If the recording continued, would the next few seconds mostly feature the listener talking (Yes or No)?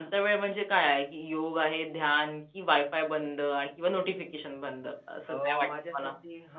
Yes